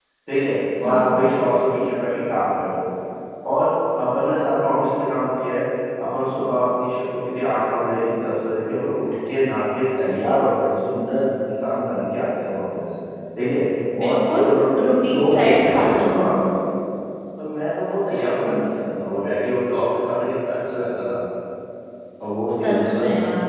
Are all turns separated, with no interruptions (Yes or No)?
No